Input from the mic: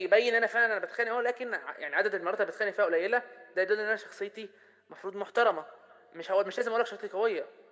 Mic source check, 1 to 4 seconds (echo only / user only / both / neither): echo only